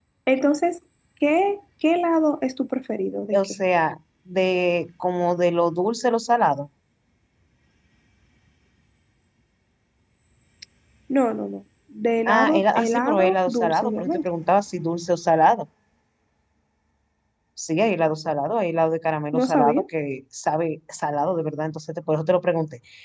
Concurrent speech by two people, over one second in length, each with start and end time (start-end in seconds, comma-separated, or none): 12.3-14.2